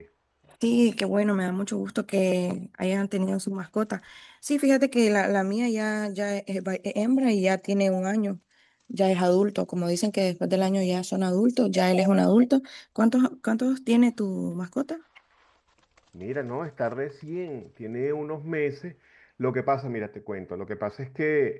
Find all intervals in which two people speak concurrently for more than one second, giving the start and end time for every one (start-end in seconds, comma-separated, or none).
none